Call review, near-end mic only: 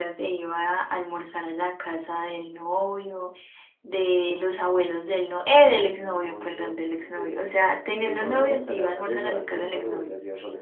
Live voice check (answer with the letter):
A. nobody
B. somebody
B